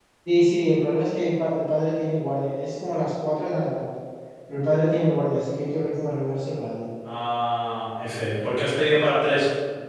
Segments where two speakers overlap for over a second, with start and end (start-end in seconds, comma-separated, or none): none